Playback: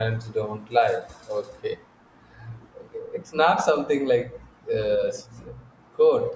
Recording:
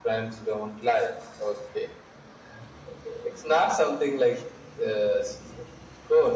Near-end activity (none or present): none